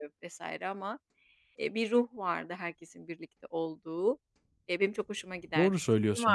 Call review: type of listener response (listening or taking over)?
taking over